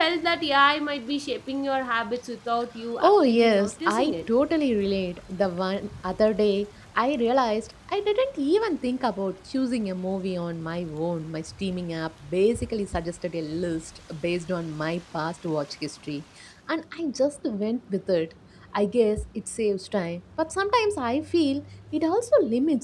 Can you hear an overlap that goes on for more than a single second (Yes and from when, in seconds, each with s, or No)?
Yes, from 3.0 s